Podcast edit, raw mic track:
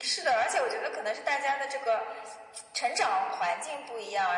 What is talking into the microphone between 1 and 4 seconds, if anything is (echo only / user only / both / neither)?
echo only